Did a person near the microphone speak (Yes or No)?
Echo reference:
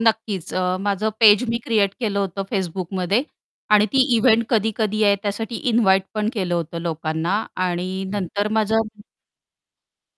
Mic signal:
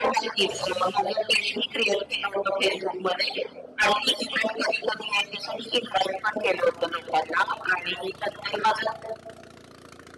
No